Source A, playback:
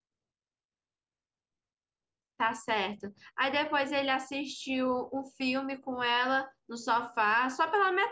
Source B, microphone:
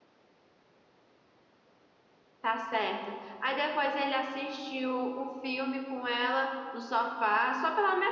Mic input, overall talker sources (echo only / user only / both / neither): echo only